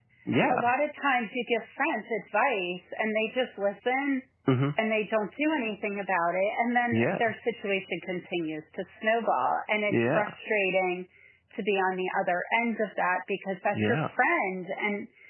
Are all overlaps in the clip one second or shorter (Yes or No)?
Yes